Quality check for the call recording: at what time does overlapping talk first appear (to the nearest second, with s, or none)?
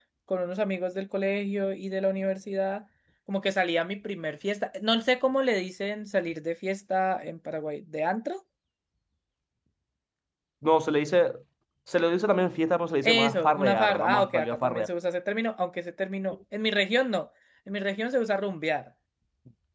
13 s